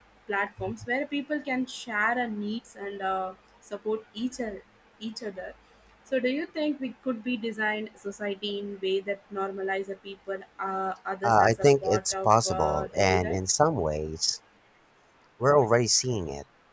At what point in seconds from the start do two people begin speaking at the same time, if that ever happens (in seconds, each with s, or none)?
11.2 s